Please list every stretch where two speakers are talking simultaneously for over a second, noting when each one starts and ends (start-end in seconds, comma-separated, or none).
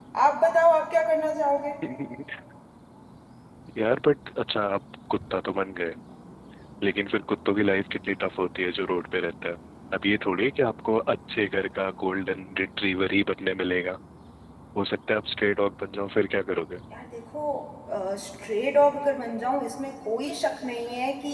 none